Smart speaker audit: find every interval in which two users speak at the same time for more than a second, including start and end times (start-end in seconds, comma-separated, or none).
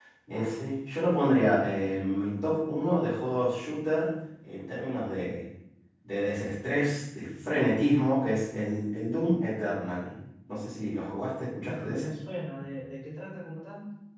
none